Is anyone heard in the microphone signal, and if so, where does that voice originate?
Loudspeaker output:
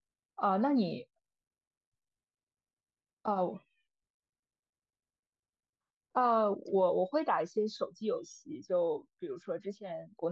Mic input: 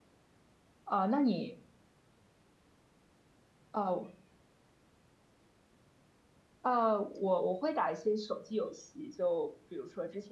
echo only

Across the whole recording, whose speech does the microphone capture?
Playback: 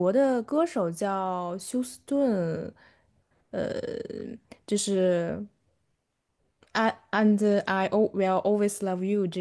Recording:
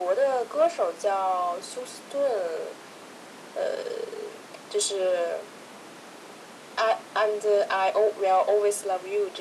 echo only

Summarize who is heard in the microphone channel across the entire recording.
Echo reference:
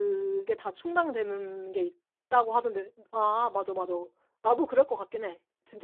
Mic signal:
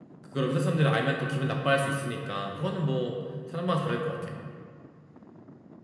user only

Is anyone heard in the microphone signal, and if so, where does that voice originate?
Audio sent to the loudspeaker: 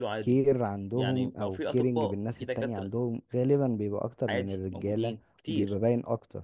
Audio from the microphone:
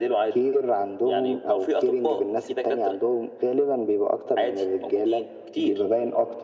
echo only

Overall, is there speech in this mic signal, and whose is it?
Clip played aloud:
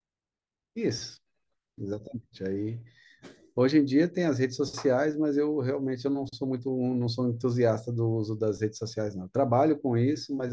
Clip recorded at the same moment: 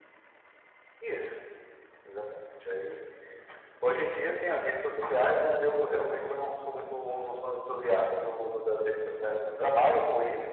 echo only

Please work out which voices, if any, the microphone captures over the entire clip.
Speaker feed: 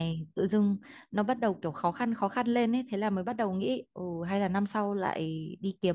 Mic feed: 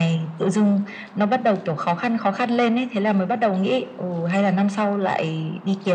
echo only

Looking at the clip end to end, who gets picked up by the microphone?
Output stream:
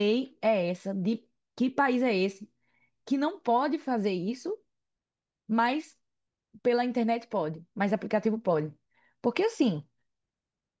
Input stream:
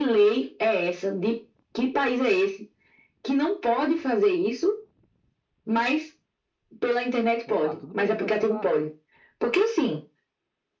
both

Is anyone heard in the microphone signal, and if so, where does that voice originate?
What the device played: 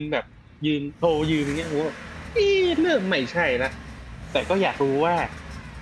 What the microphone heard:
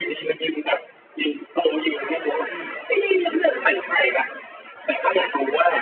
both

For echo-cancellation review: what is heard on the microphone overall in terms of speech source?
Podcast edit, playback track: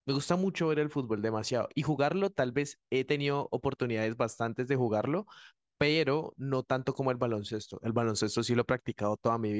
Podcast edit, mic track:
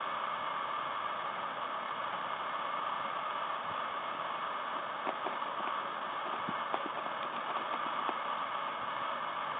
neither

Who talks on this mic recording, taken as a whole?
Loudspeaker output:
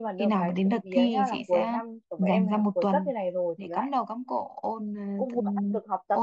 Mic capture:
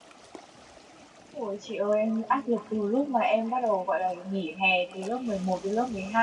user only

